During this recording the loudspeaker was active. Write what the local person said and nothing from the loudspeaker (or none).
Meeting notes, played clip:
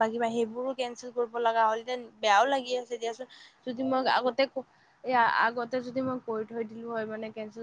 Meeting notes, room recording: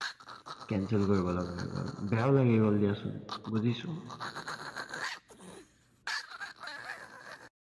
কেনচেল কৰিব লগা হৈ গ'ল বেয়াও লাগি গ'ল দিয়াচোন বুজিছো